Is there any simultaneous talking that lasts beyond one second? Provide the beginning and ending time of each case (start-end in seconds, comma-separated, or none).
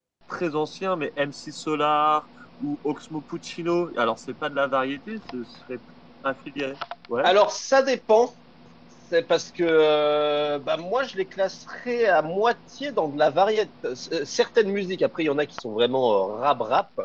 none